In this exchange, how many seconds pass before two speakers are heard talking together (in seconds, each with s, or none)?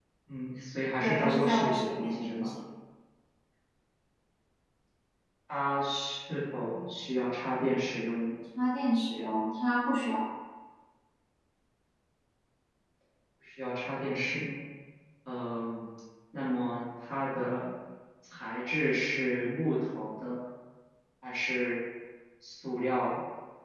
1.0 s